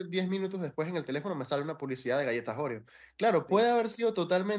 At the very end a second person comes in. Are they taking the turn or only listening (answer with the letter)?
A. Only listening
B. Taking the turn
A